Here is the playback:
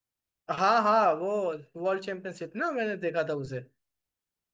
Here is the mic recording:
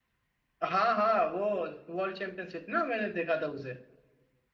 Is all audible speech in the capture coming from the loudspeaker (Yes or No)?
Yes